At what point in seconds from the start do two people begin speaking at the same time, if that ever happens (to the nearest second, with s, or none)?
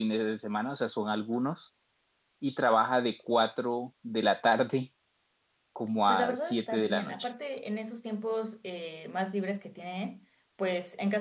6 s